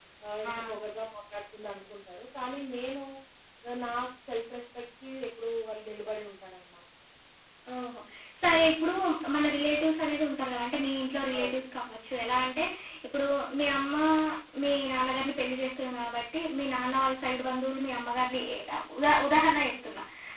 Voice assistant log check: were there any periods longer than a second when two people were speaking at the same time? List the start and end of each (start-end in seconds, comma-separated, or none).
none